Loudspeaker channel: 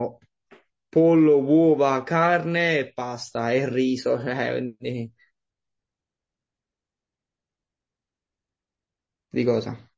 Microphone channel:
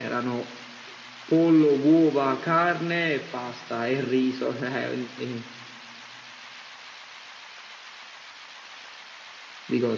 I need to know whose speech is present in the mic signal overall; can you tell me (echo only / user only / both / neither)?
echo only